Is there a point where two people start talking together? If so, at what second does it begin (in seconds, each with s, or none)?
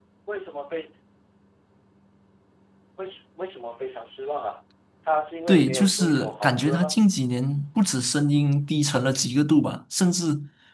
5.5 s